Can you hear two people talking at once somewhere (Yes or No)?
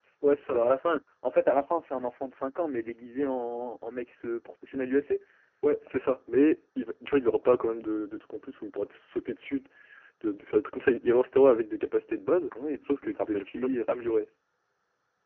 Yes